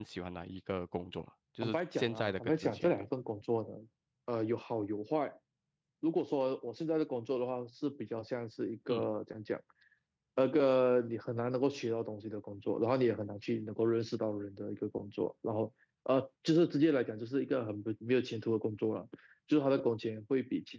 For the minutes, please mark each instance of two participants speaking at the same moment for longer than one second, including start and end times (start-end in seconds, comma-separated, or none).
1.6-3.1